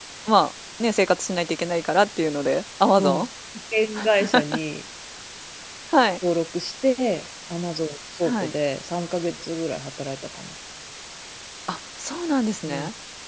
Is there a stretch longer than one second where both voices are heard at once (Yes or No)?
No